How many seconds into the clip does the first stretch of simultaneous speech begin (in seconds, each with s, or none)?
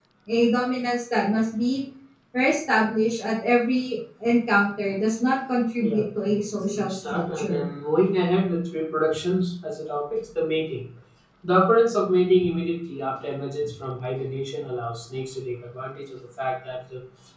5.8 s